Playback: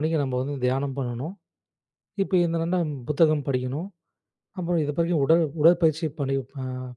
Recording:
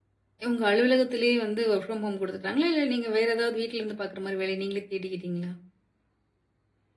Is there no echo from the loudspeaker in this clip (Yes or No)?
Yes